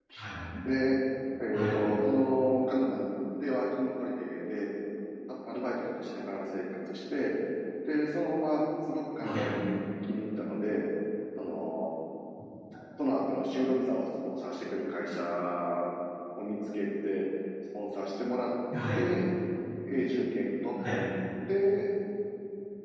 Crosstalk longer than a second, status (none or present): none